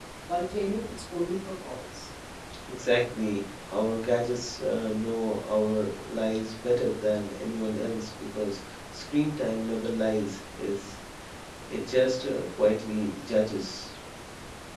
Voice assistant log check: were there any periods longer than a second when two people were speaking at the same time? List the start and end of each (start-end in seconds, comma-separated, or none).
none